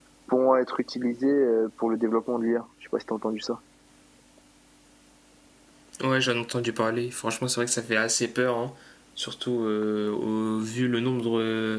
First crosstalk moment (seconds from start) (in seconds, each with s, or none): none